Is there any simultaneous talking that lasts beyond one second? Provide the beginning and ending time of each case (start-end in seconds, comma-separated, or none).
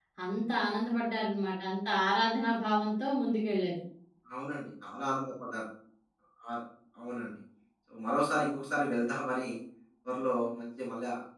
none